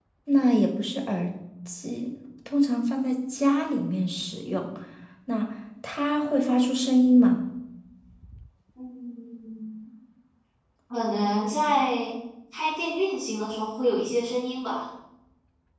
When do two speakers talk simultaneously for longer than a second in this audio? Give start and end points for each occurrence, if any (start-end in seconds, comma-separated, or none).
none